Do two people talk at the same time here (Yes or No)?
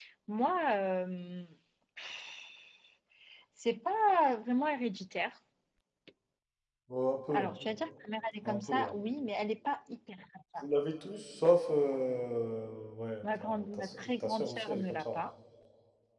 Yes